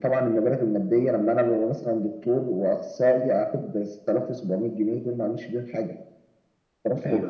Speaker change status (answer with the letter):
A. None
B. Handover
A